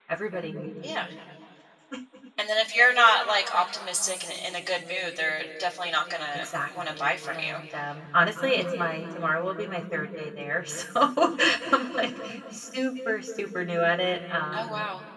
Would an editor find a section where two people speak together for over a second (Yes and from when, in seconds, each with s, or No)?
Yes, from 6.3 s